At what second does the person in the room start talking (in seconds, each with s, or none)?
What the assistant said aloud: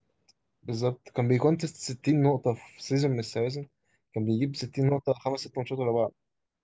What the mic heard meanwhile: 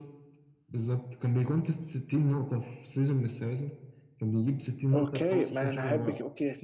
4.9 s